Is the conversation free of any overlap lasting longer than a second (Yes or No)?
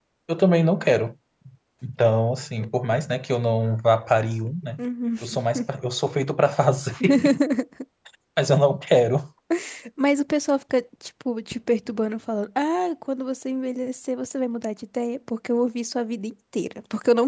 Yes